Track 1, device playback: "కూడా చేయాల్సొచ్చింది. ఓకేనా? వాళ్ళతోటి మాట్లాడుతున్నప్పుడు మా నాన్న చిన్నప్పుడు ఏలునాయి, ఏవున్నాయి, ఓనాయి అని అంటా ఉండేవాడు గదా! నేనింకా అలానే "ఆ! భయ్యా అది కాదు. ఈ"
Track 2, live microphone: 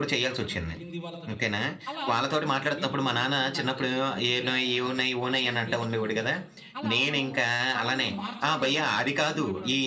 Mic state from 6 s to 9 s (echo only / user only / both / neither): both